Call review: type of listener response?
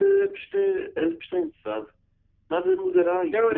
taking over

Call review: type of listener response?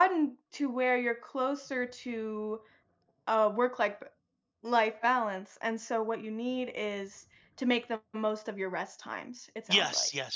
taking over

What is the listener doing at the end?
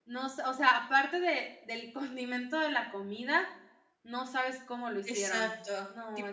taking over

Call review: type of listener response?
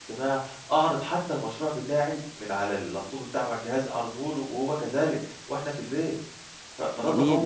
taking over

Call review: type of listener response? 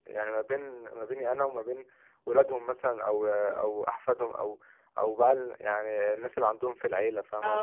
taking over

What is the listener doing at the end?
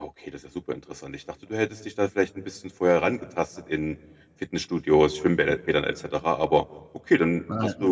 listening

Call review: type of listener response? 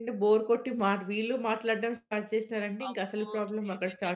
taking over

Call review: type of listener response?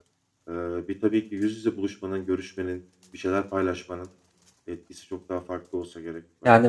taking over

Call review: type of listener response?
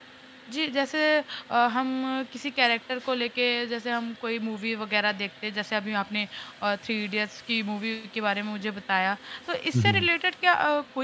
listening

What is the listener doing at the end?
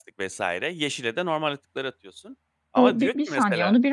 taking over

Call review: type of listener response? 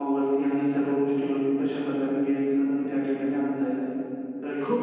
taking over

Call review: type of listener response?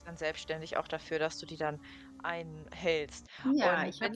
taking over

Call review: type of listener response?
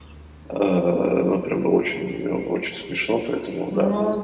taking over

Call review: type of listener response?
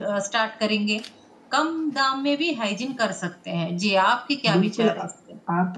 taking over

